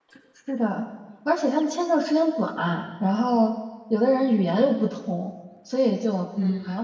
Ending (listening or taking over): listening